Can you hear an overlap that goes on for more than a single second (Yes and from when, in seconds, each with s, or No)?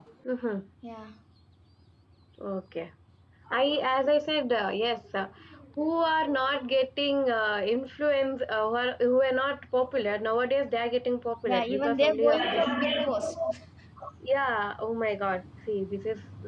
Yes, from 11.4 s